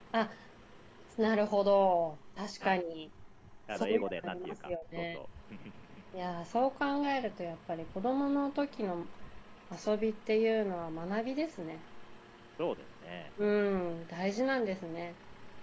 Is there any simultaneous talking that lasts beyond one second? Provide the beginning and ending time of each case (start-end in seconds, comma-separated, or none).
3.8-5.2